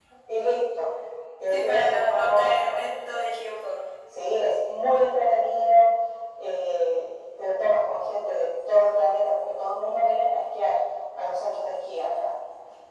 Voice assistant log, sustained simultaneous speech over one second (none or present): present